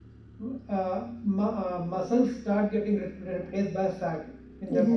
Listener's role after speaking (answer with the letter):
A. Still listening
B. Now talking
B